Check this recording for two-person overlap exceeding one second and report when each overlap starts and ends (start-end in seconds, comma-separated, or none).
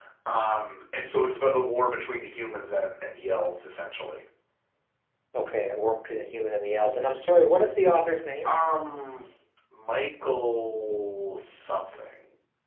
none